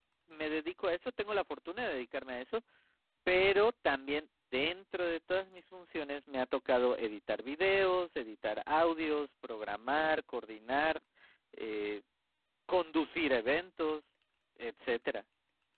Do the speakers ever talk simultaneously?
No

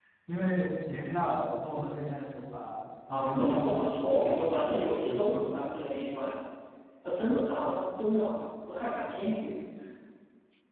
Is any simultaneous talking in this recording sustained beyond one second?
Yes, from 3.1 s

